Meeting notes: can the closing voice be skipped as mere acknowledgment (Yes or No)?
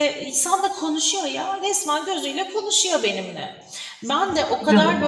Yes